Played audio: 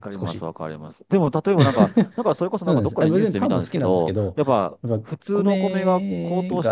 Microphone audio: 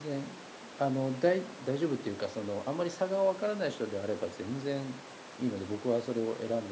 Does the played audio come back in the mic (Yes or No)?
No